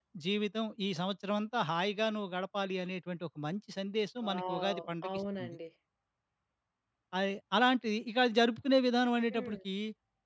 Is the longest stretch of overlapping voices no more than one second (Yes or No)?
No